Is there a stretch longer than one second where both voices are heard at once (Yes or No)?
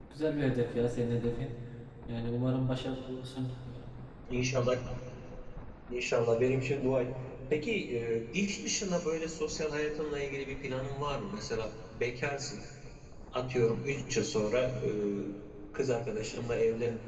No